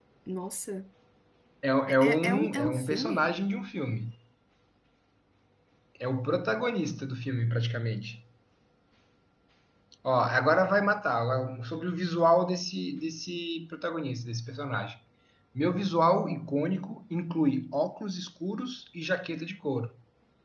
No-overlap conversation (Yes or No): No